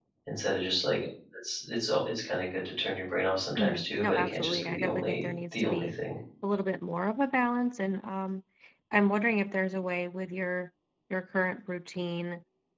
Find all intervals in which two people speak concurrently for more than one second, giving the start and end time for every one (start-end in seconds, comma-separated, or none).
3.6-5.9